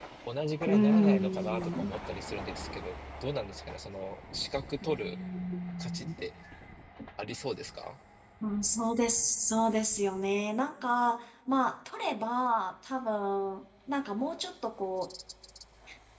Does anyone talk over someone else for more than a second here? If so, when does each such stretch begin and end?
0.6-2.0

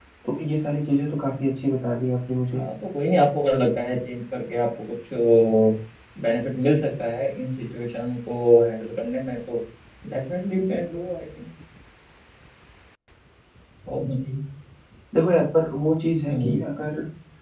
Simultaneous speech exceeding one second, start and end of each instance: none

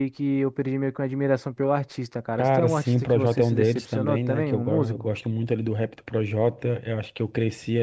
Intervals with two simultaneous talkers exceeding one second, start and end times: 2.4-5.1

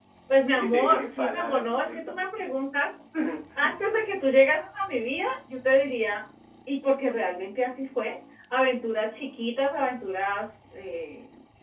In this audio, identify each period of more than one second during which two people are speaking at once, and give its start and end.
0.5-2.0

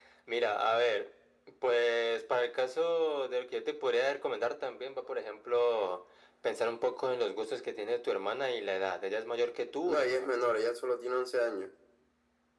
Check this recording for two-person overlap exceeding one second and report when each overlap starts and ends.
none

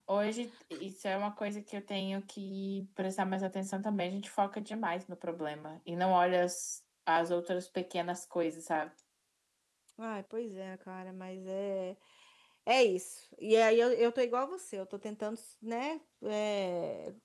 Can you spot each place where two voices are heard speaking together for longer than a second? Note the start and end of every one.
none

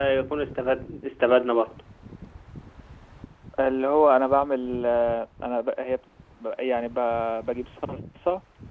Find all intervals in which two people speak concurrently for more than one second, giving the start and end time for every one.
none

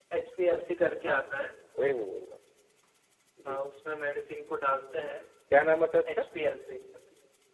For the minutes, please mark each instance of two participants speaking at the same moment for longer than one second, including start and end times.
none

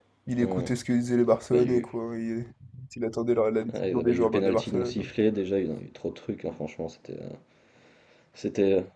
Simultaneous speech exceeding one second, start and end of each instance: 3.7-5.1

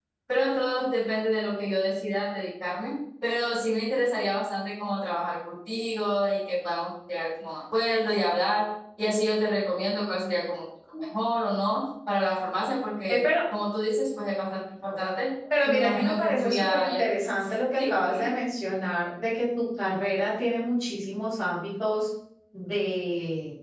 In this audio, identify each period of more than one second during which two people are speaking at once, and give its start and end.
15.6-17.0

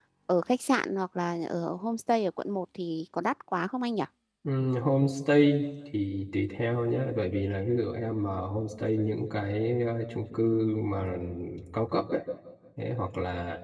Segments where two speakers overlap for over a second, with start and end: none

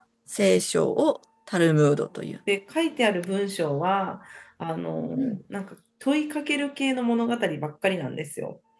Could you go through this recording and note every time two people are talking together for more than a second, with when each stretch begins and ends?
none

